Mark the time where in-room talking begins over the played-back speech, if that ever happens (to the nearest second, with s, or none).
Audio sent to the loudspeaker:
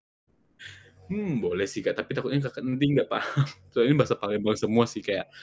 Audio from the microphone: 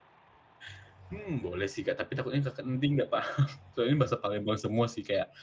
none